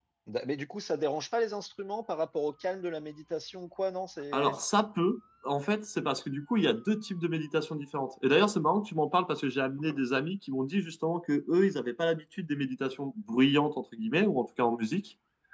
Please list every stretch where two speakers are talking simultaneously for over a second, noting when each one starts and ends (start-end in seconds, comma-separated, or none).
none